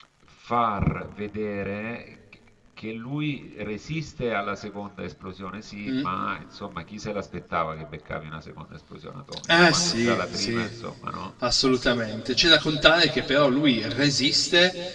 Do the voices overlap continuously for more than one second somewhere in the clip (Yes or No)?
Yes